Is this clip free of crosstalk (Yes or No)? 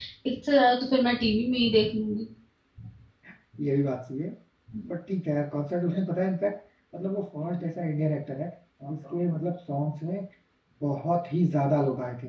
Yes